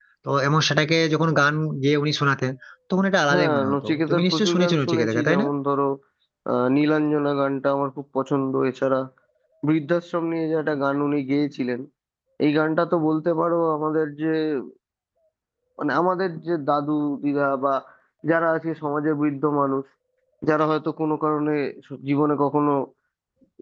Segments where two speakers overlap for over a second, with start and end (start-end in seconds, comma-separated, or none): 3.3-5.5